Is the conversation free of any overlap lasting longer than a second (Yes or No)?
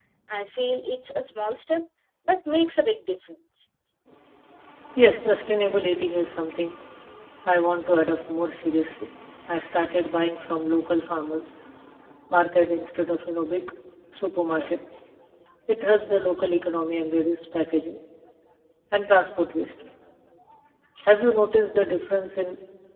Yes